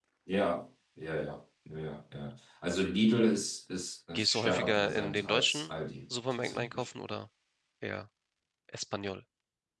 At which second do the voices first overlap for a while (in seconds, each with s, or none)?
4.1 s